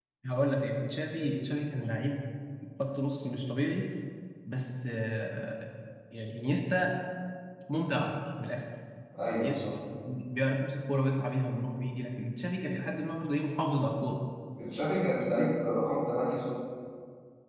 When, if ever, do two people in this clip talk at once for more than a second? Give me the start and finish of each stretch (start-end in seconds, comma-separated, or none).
none